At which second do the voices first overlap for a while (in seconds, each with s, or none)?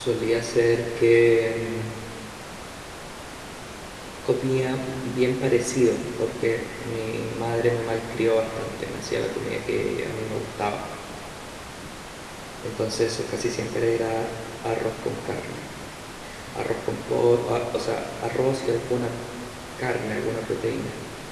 none